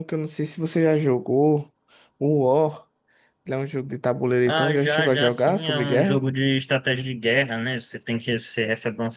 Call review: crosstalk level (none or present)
present